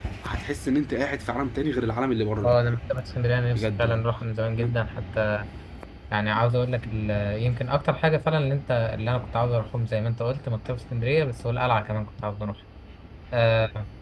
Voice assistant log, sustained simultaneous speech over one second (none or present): none